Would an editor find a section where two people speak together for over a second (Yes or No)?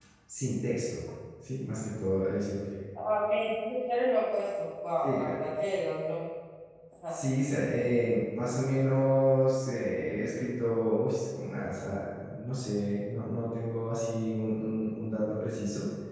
No